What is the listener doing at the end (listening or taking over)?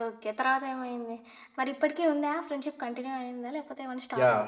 taking over